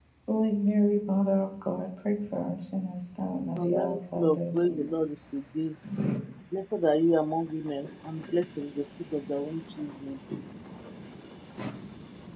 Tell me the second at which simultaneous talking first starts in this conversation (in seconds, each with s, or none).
3.6 s